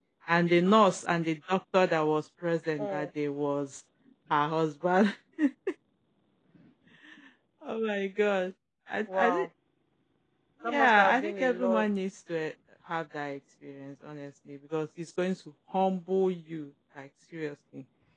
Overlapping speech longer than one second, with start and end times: 10.6-11.9

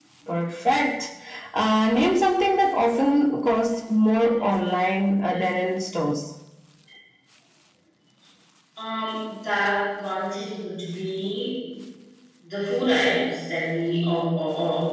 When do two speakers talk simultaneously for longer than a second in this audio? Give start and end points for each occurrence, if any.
none

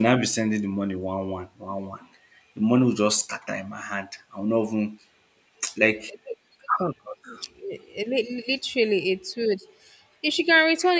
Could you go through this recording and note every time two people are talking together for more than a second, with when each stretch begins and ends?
none

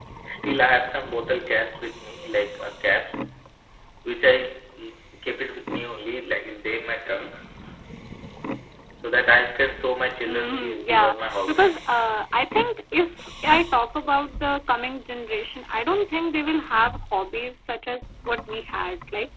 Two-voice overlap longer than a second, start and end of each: 10.3-11.9

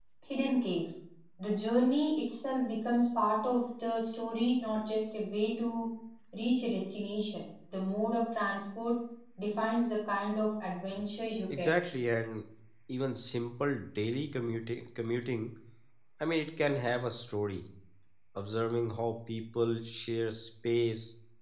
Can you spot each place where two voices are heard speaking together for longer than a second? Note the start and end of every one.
none

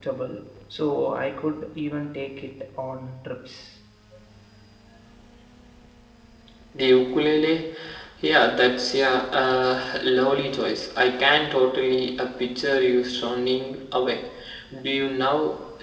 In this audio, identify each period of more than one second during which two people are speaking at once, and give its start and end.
none

